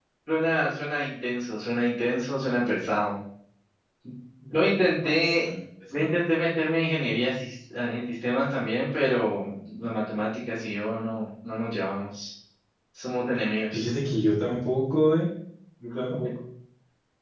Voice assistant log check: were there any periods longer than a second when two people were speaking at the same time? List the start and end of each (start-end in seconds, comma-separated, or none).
none